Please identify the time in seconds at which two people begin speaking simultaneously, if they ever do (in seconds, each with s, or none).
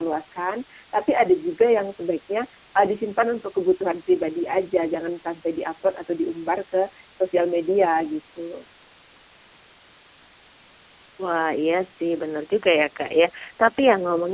none